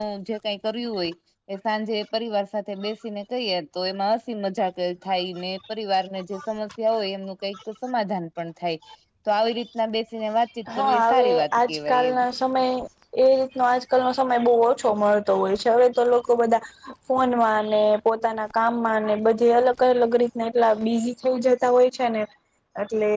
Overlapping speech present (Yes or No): Yes